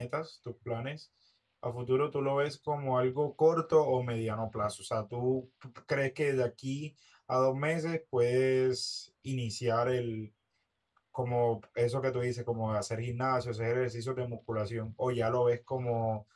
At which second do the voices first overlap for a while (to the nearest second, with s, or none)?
none